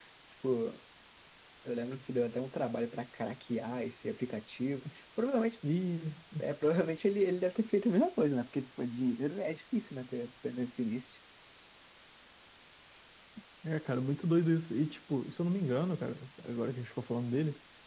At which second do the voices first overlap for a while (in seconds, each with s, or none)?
none